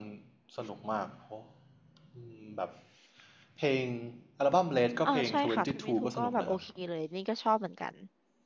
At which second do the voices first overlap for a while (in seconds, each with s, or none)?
5.0 s